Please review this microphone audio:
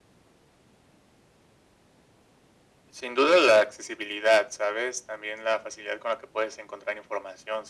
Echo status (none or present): present